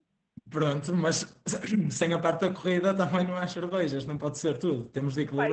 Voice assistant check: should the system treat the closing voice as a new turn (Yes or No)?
Yes